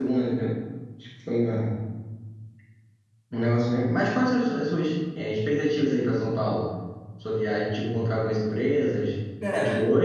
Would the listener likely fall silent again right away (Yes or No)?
Yes